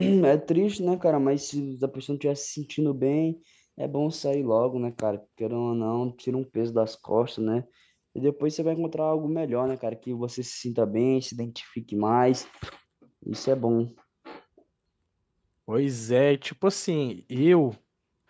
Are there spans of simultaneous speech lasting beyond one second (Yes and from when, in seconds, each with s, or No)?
No